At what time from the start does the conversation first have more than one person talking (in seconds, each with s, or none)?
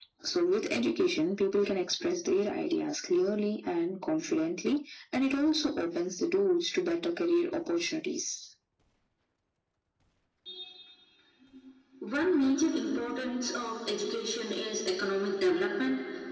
none